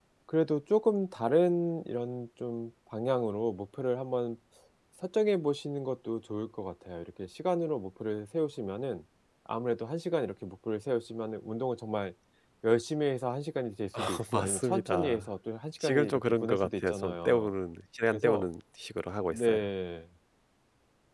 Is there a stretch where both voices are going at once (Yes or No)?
Yes